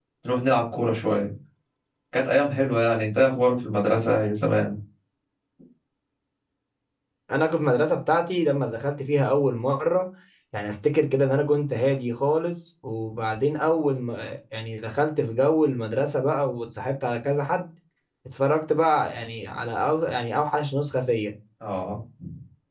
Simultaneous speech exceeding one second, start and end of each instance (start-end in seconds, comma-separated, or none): none